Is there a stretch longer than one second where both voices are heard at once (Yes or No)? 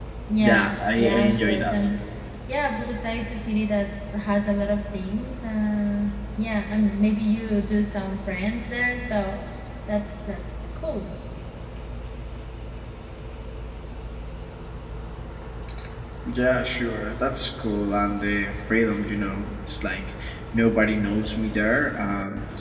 Yes